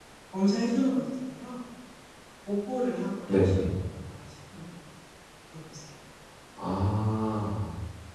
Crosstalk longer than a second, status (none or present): none